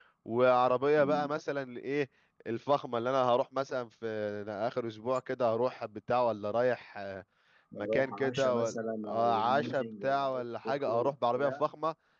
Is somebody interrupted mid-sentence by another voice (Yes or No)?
Yes